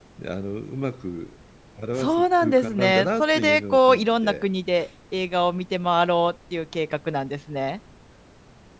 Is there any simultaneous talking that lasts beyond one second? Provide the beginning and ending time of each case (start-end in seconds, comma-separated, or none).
2.0-4.4